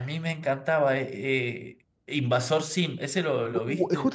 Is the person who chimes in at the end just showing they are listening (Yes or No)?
No